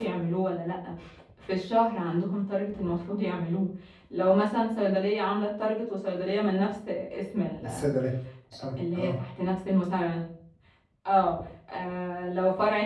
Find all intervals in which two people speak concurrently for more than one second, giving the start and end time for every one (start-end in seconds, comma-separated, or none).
none